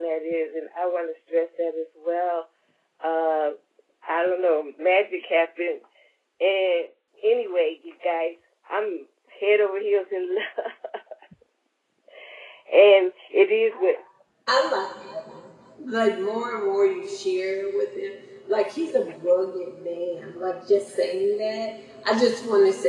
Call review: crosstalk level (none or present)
none